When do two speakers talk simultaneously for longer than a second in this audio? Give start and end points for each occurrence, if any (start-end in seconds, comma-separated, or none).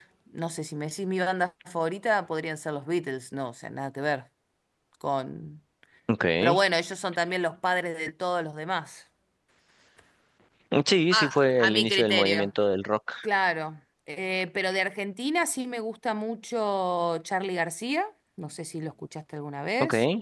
11.1-12.5